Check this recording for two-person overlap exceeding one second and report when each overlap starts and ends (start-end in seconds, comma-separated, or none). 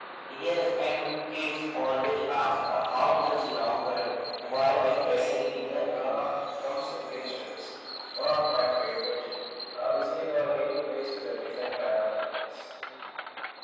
4.7-6.2